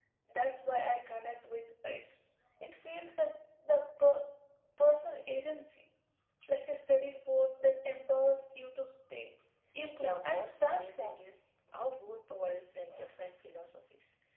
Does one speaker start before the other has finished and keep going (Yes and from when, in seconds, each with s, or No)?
Yes, from 9.9 s